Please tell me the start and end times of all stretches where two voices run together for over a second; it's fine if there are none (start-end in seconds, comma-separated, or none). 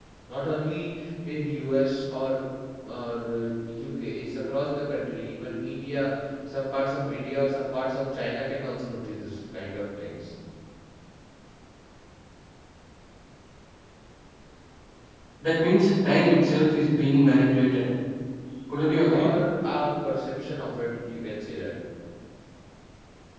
none